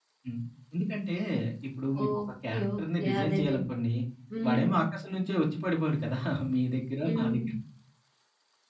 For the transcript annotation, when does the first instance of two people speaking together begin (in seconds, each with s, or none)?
2.0 s